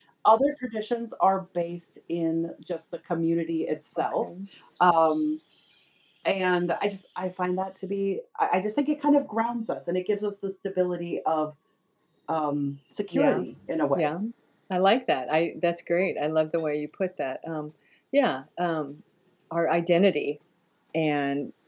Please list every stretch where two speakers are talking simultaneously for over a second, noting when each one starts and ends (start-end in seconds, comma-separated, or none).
none